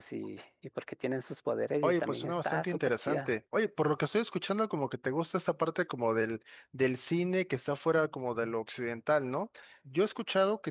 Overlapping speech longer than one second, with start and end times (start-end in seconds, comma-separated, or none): 1.8-3.3